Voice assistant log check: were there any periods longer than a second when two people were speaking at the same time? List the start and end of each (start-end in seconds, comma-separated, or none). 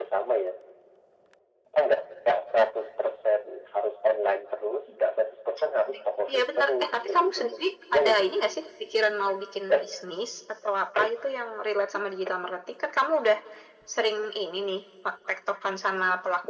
6.3-7.5